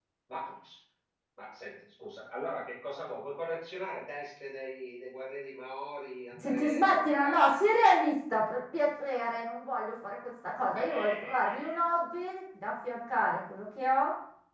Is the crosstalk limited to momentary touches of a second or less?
No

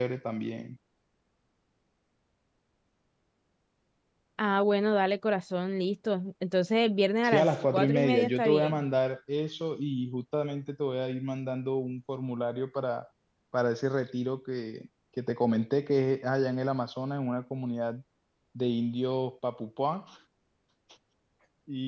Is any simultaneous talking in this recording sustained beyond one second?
Yes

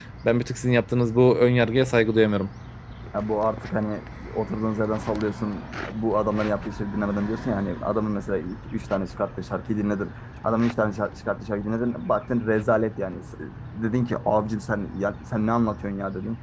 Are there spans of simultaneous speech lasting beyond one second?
No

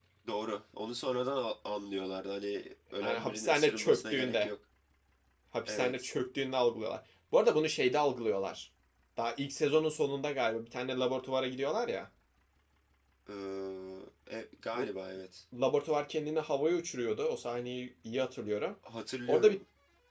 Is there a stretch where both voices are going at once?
Yes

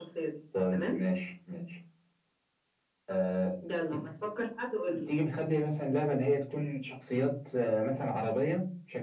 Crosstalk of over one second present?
No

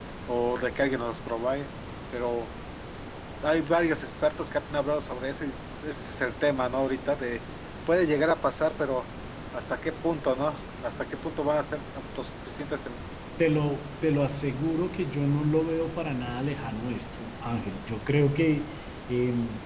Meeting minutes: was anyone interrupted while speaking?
No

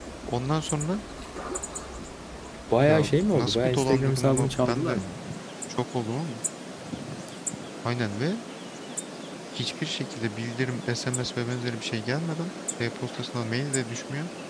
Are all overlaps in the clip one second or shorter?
No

